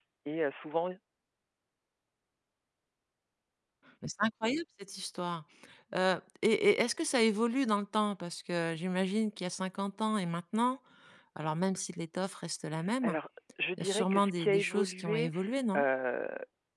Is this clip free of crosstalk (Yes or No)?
No